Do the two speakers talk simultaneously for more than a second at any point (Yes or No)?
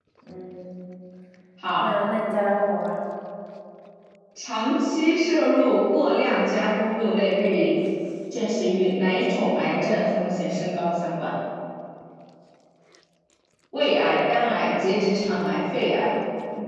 No